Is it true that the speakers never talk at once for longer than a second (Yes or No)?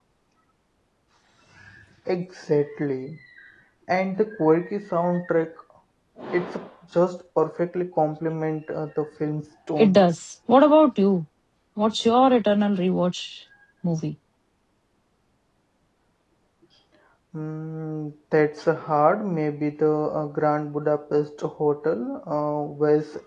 Yes